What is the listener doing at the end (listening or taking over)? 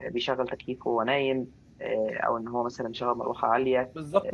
taking over